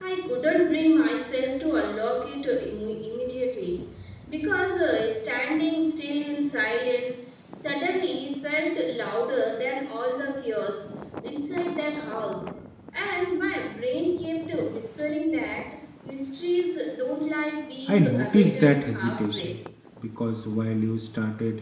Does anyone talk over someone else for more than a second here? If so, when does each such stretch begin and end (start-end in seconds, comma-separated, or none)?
17.9-19.5